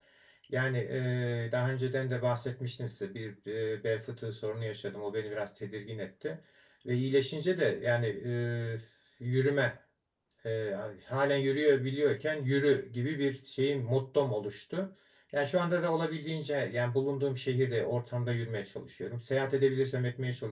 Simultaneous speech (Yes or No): No